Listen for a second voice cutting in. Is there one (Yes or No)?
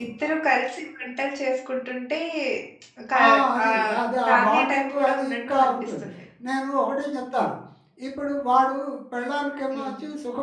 Yes